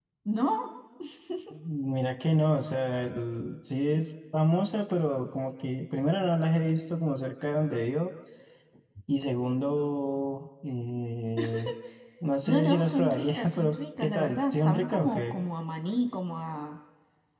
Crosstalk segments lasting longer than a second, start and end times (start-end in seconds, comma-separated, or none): 12.5-15.4